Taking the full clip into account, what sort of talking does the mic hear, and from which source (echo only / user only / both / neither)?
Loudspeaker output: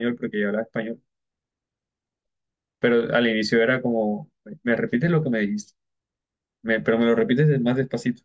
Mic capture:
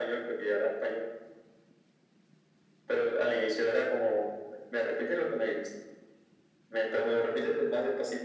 echo only